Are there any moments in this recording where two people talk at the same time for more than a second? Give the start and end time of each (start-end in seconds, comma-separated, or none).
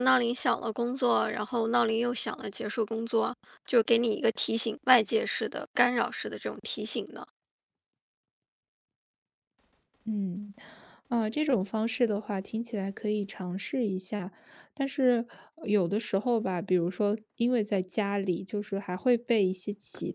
none